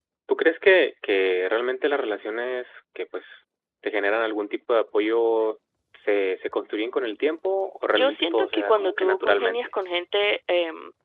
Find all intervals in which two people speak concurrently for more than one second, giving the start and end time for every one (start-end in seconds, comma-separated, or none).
7.9-9.6